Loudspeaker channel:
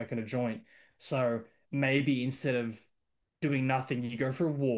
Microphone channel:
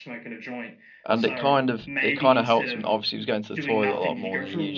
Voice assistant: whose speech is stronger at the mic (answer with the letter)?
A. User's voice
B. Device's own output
A